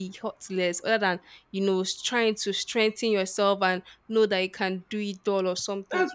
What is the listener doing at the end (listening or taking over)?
taking over